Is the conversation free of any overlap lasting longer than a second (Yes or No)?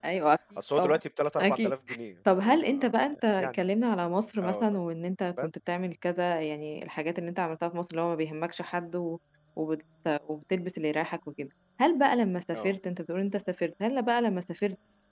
No